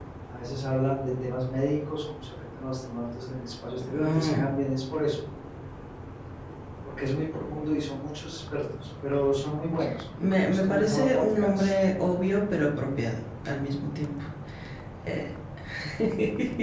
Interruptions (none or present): present